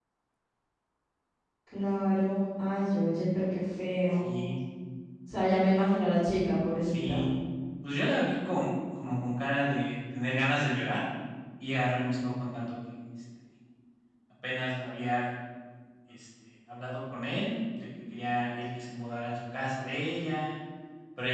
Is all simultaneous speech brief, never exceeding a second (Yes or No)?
Yes